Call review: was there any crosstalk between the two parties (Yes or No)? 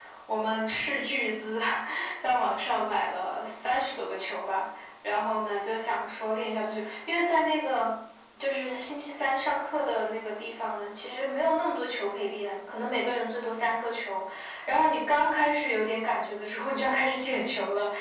No